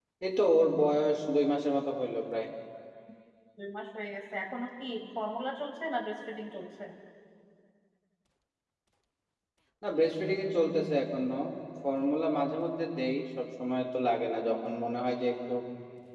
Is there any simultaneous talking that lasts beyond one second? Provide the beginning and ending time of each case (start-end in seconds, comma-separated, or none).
none